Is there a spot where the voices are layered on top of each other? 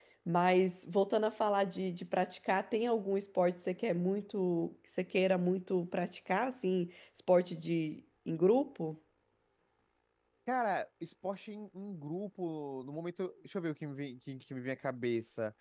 No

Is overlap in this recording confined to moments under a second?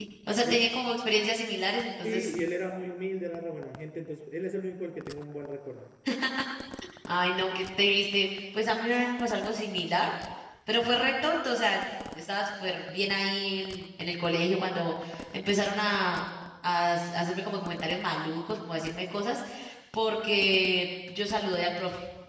Yes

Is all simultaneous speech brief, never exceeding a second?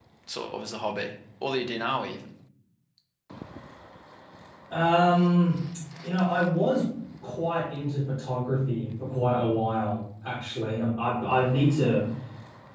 Yes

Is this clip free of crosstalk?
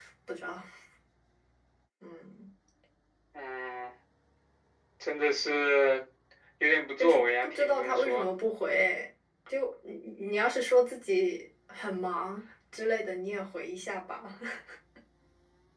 No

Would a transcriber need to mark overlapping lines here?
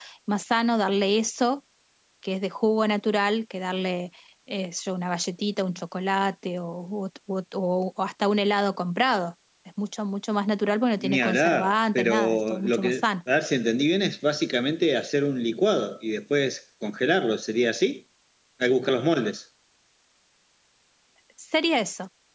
Yes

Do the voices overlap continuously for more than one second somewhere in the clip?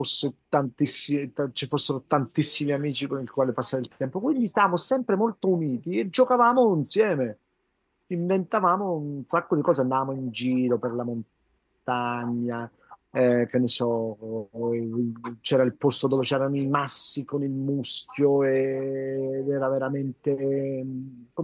No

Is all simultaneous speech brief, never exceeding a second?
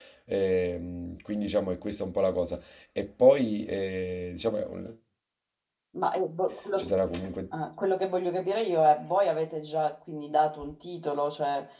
Yes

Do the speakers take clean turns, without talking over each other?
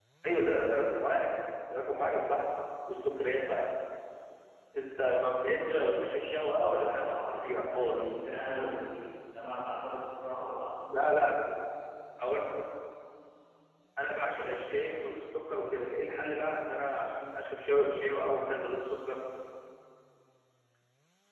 No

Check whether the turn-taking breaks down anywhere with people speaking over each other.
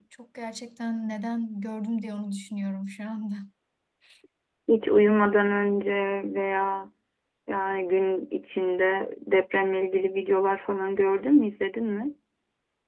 No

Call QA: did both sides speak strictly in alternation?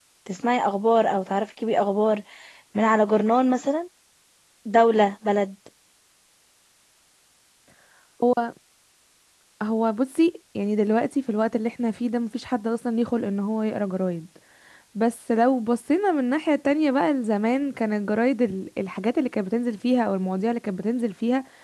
Yes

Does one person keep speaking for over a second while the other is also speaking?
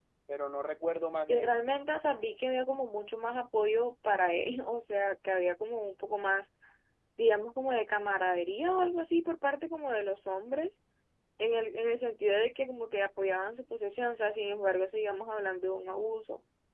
No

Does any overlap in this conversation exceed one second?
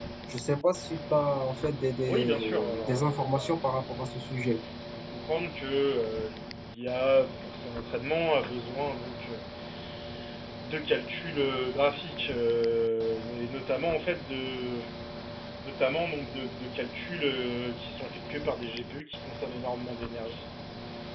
Yes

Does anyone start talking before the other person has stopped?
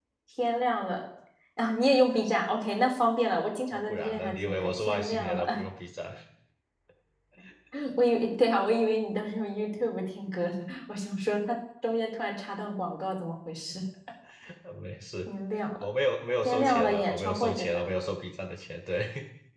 Yes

